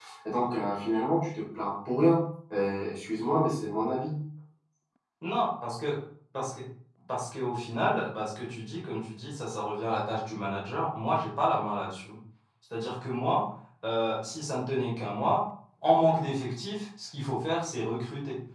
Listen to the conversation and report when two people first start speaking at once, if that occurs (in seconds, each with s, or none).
none